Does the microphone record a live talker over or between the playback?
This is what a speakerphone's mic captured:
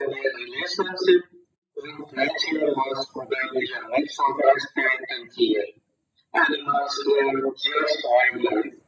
No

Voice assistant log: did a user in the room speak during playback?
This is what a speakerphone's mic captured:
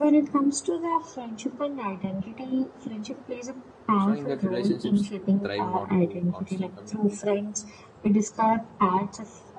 Yes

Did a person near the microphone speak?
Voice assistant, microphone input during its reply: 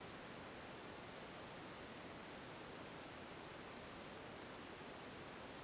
No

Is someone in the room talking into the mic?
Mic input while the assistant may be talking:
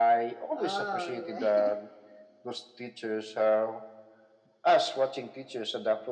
Yes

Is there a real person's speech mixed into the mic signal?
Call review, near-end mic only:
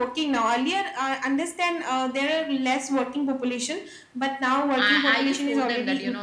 Yes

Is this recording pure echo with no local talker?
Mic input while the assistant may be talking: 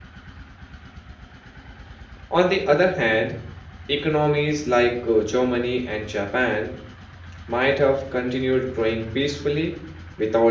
No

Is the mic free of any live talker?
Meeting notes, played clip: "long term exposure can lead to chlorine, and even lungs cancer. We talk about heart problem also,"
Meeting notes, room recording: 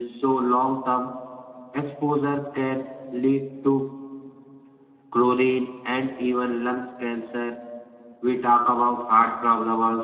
Yes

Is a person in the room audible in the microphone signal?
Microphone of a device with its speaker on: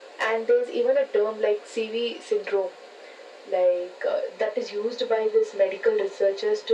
No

